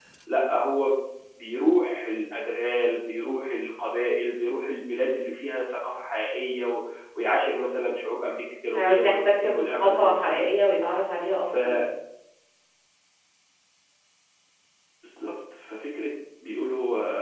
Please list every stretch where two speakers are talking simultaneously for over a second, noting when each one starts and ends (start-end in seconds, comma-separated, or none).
8.7-10.4